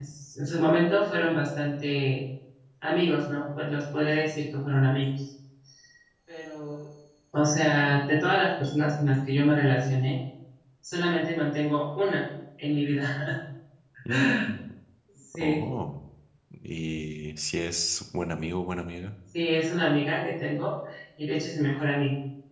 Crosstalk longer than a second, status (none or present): none